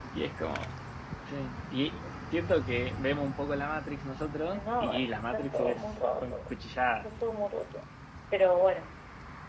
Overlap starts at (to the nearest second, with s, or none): 5 s